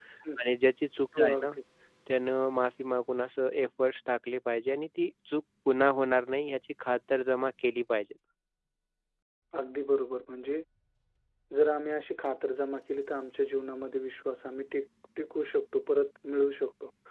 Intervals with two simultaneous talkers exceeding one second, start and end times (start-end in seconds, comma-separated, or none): none